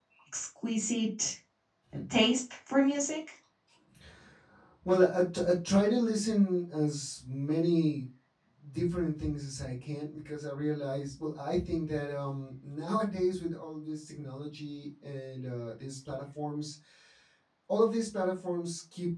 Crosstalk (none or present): none